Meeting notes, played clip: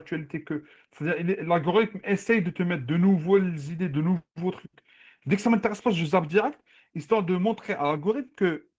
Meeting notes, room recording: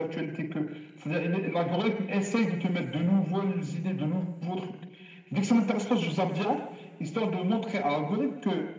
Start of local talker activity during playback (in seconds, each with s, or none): none